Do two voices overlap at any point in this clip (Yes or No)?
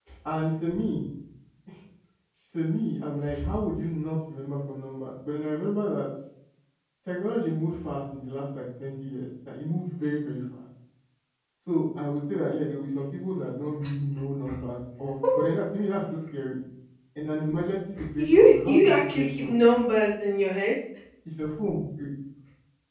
Yes